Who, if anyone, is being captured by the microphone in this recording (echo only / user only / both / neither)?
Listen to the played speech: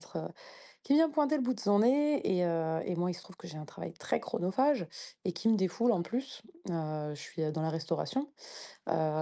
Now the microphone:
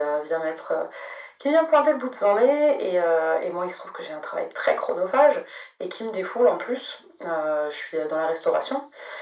echo only